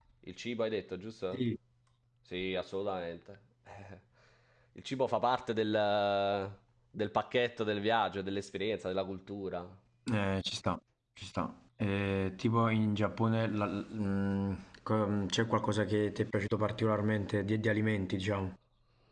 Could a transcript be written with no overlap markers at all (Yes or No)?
Yes